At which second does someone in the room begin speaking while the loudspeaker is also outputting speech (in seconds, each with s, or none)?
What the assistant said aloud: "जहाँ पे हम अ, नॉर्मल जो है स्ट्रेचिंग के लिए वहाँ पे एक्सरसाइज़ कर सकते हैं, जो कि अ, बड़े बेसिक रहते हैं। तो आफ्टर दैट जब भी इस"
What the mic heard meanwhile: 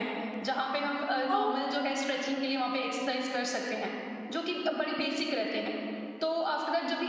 1.1 s